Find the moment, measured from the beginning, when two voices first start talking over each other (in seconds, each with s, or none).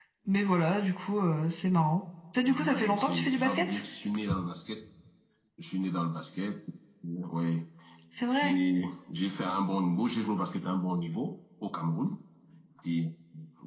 2.4 s